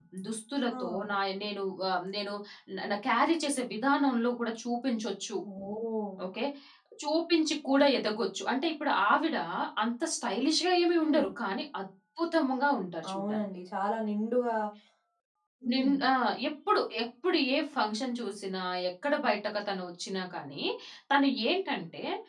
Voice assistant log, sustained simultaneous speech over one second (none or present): none